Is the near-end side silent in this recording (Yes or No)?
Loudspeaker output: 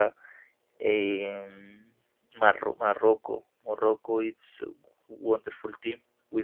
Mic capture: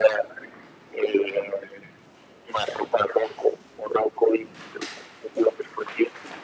Yes